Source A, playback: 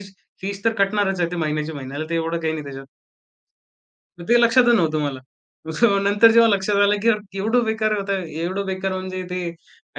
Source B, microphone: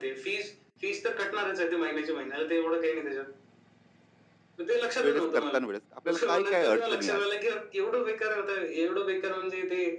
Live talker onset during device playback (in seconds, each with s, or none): 5.1 s